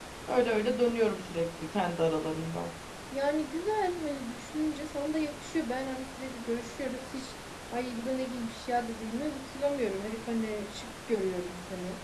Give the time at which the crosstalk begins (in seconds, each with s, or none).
none